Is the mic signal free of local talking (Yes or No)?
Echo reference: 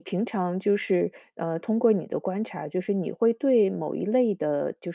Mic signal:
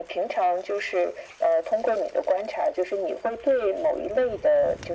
Yes